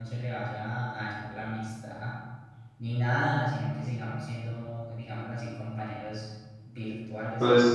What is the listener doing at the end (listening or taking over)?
taking over